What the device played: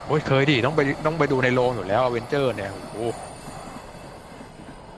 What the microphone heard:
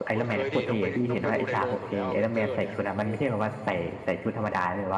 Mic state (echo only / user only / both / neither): both